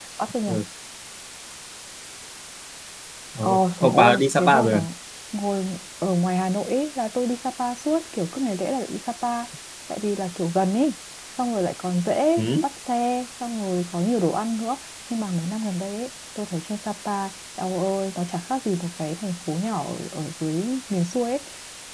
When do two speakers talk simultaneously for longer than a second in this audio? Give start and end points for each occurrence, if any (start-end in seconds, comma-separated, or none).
3.4-4.8